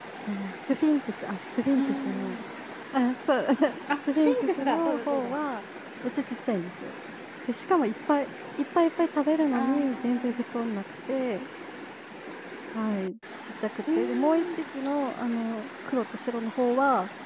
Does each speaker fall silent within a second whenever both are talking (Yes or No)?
No